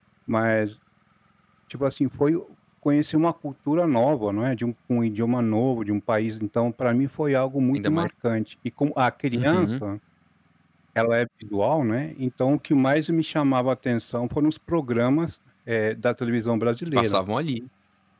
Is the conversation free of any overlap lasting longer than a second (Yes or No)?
Yes